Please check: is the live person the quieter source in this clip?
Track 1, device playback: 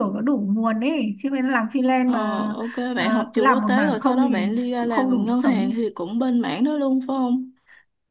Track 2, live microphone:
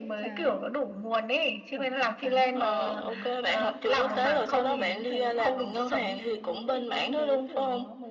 Yes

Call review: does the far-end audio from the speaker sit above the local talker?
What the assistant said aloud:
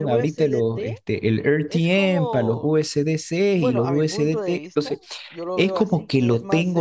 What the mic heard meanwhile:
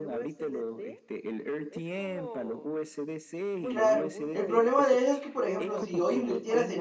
No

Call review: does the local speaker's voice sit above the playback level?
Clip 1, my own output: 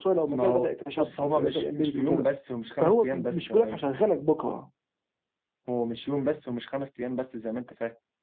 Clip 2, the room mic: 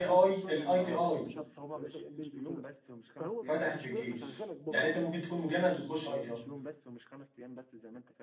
Yes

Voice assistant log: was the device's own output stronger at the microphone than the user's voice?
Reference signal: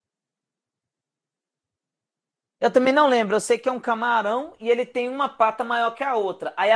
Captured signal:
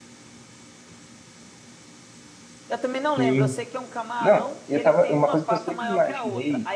No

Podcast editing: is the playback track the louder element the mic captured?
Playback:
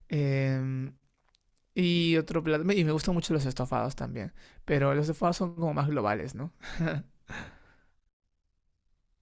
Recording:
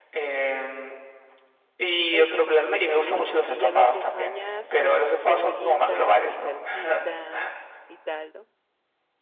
Yes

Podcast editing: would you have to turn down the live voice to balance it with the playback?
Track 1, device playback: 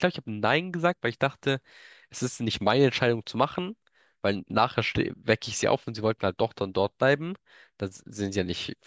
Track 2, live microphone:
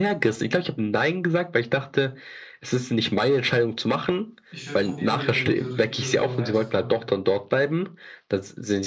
No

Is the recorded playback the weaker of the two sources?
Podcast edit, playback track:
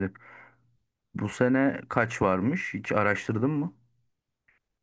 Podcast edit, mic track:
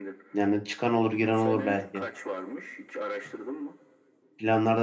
Yes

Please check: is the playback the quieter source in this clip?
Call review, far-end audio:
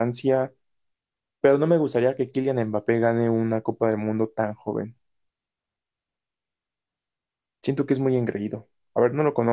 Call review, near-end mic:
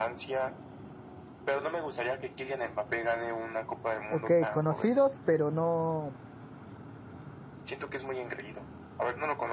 Yes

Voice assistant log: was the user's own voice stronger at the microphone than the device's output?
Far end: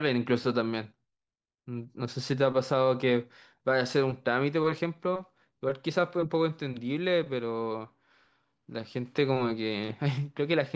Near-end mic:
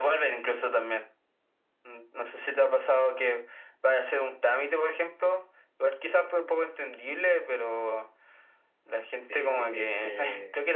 No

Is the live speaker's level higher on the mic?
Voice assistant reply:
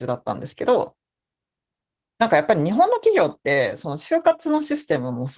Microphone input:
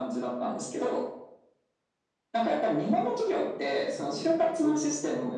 No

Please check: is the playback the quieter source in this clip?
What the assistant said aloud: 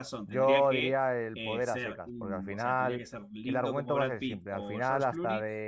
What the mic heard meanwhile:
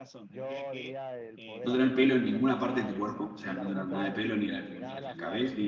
Yes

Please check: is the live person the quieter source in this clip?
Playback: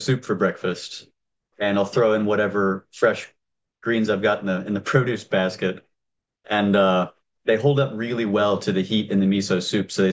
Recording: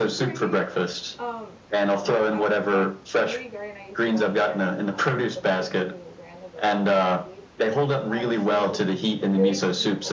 Yes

